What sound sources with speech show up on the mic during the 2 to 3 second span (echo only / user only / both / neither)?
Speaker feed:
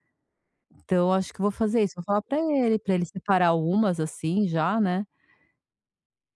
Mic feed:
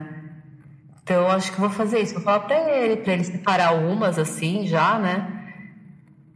echo only